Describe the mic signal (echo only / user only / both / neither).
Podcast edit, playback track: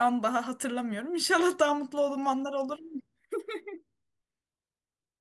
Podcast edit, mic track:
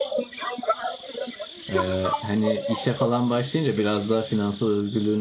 both